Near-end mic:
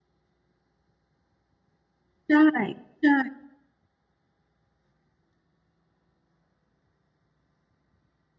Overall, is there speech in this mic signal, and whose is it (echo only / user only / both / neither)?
user only